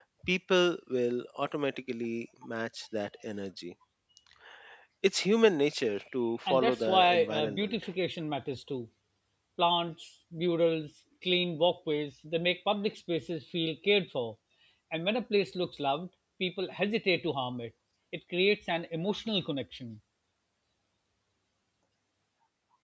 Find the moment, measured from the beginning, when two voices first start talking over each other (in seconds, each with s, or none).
6.5 s